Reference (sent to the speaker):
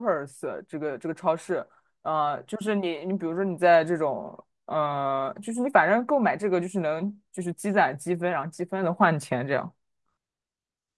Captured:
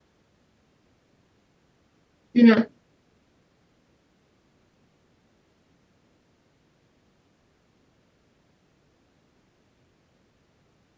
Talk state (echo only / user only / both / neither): user only